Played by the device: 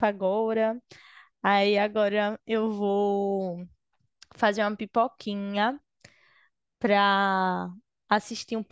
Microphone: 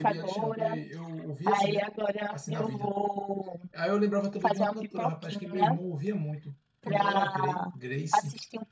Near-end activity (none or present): present